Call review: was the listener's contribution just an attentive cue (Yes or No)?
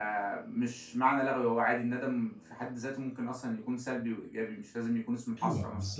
No